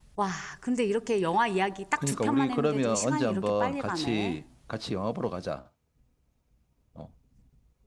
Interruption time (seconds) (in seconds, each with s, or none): 2.0 s